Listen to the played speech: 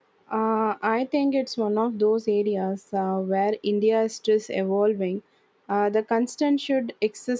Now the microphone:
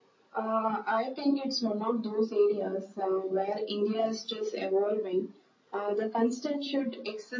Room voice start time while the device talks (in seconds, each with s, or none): none